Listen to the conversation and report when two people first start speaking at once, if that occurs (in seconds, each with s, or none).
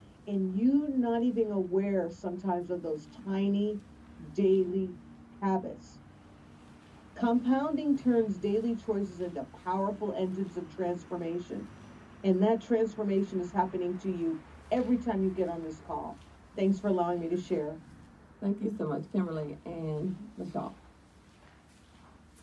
none